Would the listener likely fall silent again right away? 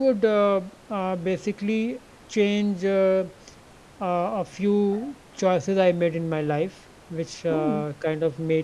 Yes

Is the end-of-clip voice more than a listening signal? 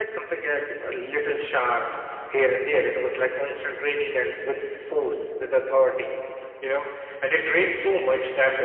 No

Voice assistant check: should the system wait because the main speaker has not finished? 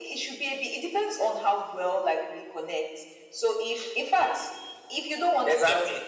No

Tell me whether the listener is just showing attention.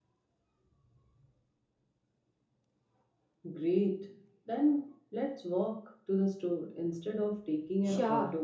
No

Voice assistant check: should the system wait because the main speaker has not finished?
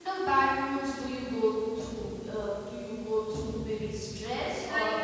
No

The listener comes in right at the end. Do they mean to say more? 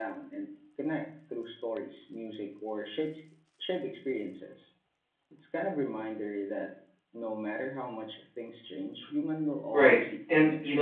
Yes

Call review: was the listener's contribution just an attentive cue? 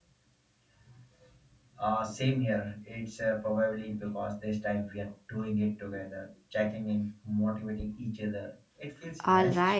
No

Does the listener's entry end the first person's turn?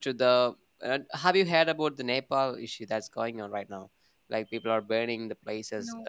No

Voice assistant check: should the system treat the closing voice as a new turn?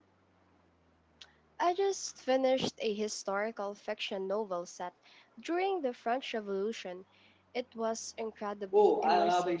Yes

